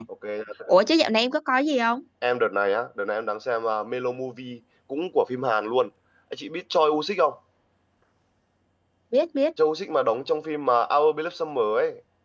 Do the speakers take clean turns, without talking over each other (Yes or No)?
Yes